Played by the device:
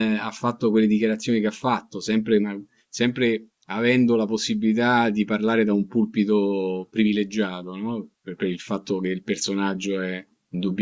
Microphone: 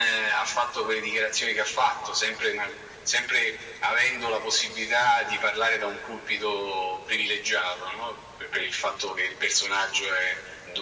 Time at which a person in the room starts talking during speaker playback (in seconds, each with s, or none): none